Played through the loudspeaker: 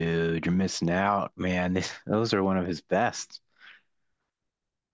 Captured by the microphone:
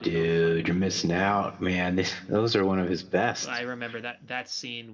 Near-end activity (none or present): present